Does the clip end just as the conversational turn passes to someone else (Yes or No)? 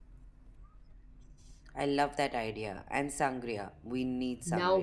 Yes